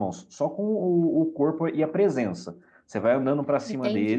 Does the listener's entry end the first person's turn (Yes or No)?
No